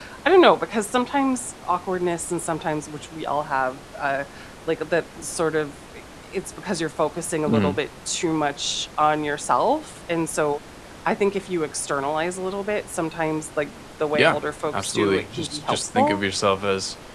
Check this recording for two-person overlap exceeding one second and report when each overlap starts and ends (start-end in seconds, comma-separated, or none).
14.7-16.2